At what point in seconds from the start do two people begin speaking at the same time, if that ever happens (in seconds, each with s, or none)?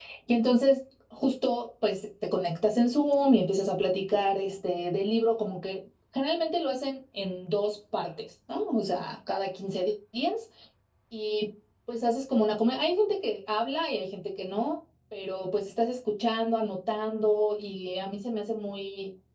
none